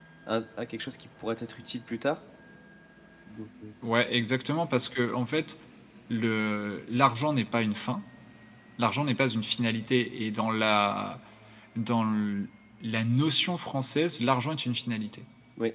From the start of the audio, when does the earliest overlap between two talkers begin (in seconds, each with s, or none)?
none